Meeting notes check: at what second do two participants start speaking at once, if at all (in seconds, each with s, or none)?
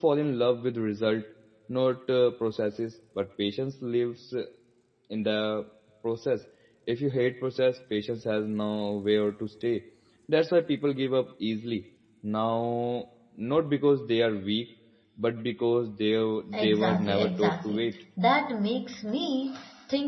16.6 s